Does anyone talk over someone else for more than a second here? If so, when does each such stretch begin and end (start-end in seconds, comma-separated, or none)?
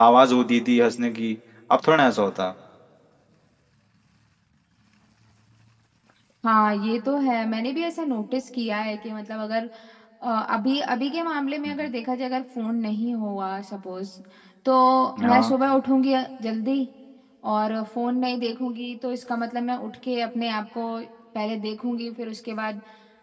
none